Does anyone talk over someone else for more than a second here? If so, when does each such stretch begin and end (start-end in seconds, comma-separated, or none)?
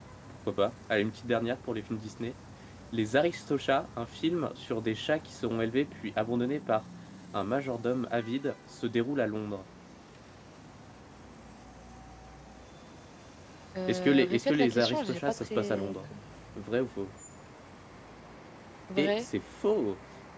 13.9-15.9